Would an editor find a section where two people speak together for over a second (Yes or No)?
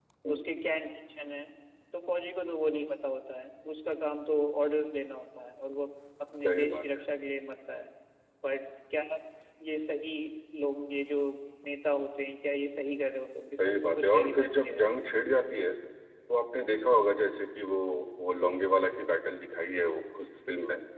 Yes